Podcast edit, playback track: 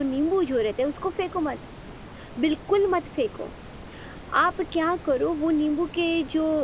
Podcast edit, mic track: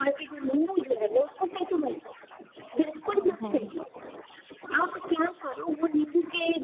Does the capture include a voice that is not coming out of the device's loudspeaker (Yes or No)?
Yes